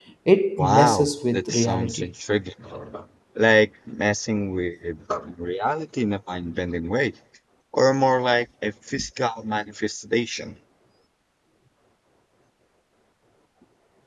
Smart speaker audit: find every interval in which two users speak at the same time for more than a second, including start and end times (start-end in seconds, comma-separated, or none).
0.6-2.1